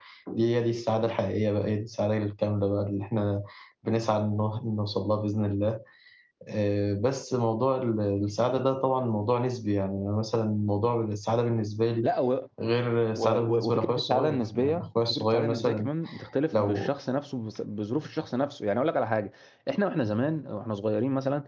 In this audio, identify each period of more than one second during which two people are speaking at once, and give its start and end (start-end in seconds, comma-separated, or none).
13.2-15.9